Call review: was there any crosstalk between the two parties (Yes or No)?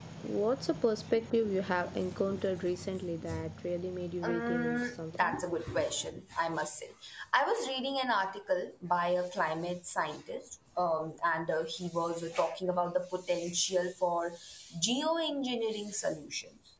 Yes